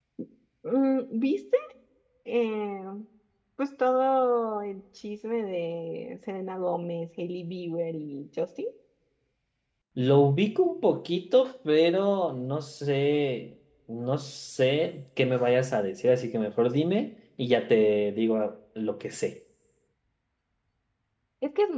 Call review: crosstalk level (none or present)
none